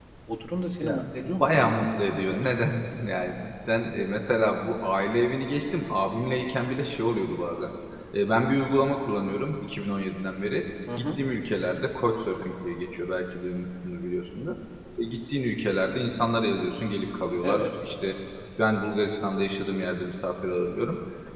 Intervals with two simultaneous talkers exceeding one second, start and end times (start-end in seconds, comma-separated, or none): 0.8-2.5